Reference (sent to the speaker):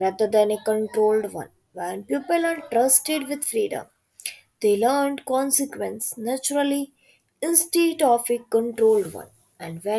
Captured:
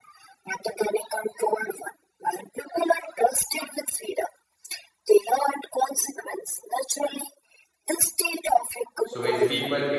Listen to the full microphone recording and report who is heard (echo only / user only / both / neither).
both